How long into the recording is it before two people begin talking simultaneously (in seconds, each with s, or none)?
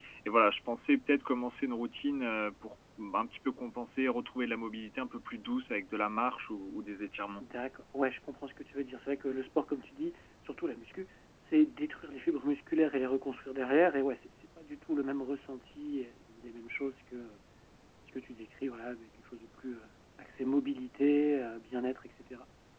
none